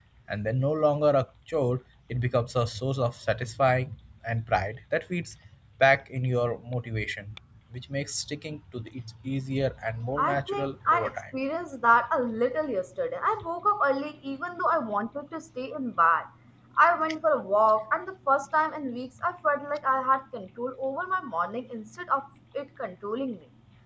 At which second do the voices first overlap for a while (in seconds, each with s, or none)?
10.2 s